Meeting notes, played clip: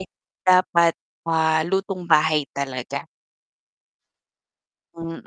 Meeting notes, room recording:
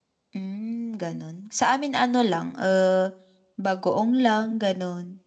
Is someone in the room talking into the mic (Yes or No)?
Yes